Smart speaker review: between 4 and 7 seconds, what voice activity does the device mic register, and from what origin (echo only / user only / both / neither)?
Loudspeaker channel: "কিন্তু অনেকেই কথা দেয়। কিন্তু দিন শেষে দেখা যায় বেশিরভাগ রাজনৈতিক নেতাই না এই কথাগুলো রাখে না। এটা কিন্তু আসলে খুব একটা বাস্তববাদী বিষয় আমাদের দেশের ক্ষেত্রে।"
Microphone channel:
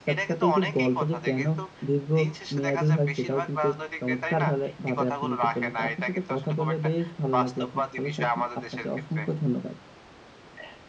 both